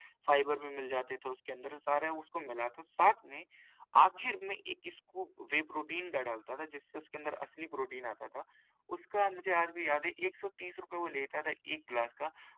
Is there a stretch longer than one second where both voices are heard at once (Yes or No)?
No